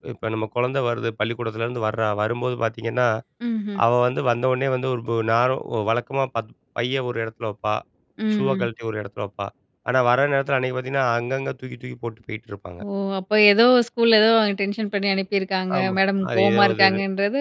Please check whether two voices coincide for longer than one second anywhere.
Yes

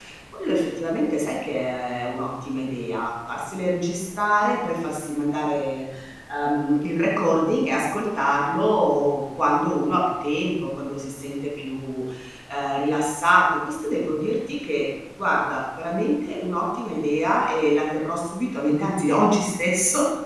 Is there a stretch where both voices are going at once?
No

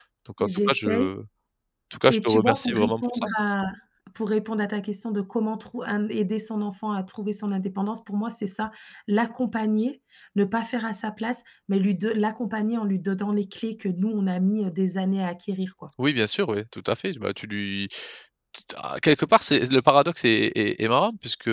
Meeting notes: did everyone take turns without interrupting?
No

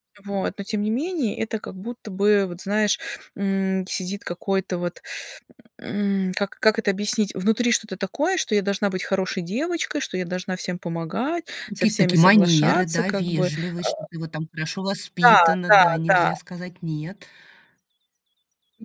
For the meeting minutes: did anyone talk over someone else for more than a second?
Yes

